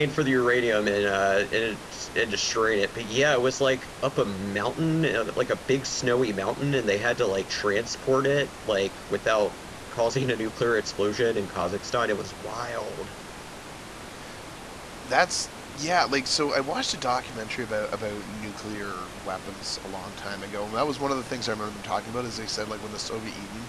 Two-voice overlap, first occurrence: none

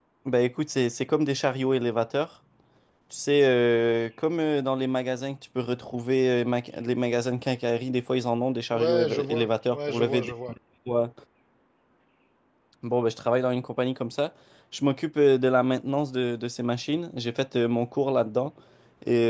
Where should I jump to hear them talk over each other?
8.7 s

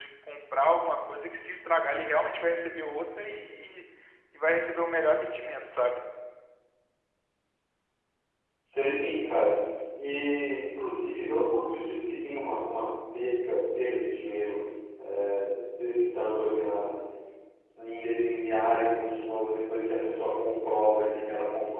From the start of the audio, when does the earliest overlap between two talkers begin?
none

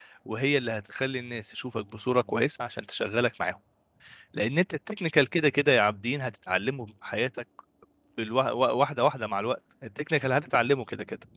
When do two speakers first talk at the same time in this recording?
none

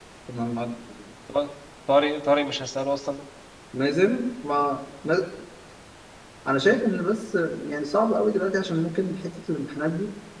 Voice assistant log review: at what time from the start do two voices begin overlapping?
none

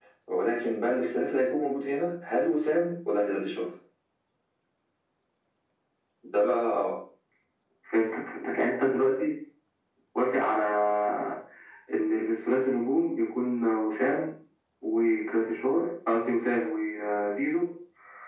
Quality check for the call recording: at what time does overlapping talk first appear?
none

